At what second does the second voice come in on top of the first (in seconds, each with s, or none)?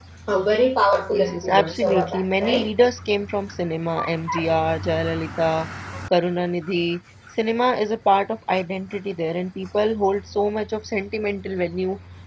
1.1 s